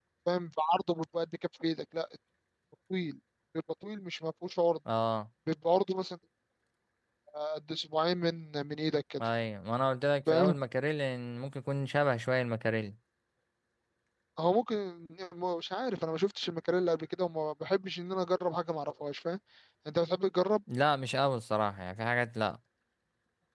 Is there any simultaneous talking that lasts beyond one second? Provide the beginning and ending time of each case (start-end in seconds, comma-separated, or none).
none